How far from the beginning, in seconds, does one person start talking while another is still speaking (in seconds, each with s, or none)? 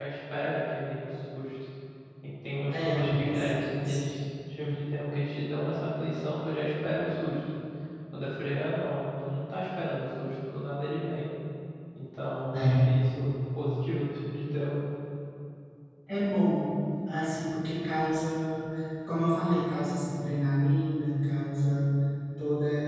2.7 s